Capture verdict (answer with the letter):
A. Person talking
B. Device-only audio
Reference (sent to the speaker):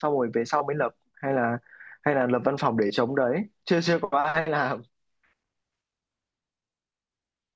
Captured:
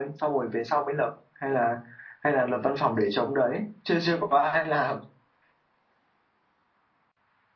B